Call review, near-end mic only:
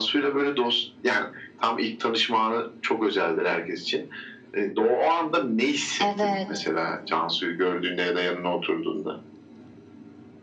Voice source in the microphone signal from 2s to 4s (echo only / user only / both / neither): echo only